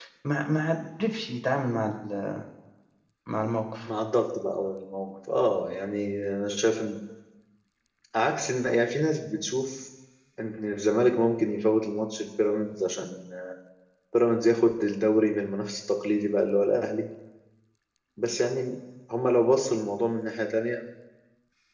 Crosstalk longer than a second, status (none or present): none